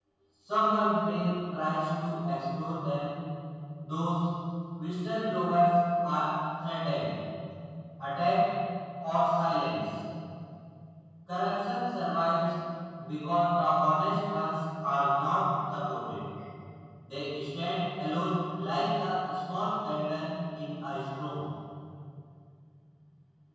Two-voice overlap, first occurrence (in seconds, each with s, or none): none